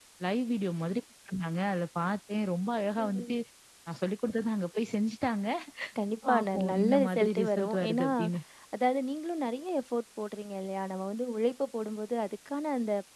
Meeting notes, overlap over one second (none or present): present